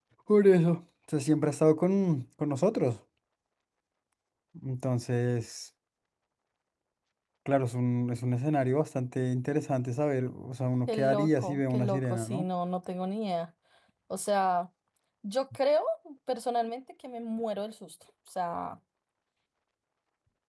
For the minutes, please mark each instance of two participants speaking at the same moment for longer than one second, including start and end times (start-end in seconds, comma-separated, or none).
10.9-12.4